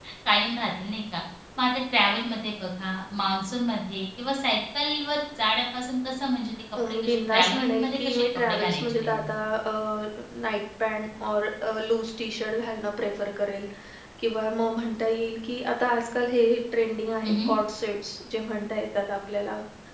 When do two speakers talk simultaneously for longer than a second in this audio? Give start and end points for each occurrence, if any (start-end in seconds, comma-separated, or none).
6.9-9.2